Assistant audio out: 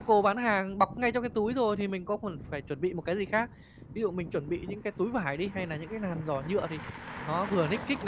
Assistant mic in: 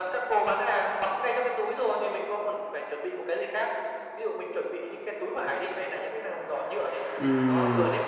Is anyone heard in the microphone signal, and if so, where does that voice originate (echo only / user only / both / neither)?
both